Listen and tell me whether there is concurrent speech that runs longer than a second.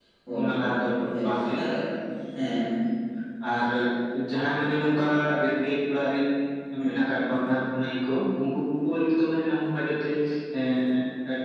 No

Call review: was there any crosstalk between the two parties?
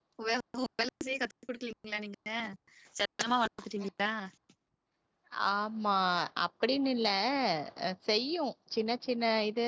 No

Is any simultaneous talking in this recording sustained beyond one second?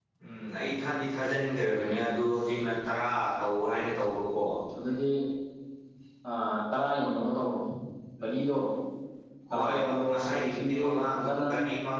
Yes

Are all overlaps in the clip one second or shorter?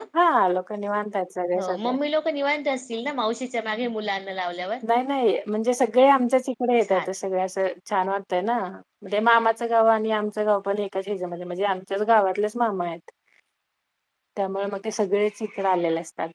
Yes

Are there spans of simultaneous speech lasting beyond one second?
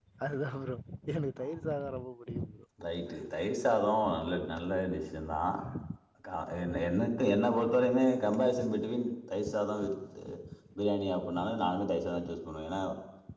No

